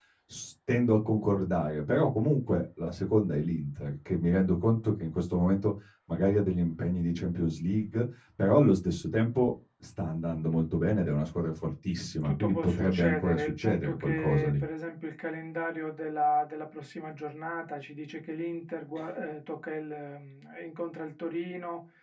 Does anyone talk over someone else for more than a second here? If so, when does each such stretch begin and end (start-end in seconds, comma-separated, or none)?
12.3-14.6